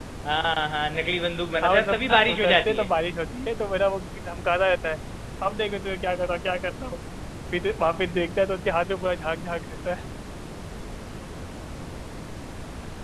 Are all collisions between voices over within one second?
No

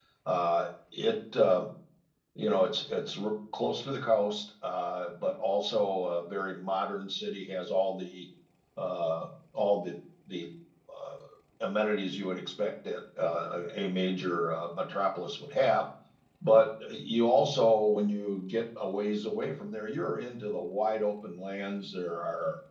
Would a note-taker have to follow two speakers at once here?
No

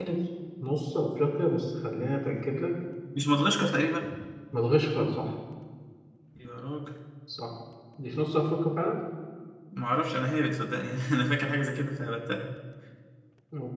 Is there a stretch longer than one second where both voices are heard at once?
No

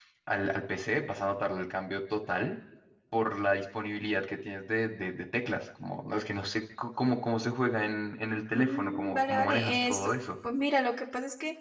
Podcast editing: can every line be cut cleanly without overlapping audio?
No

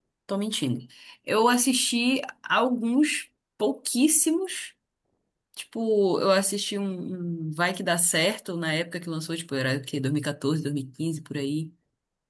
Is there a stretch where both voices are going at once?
No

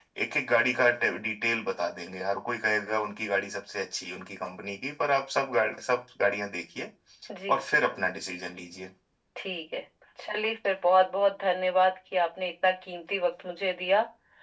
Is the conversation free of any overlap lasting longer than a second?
Yes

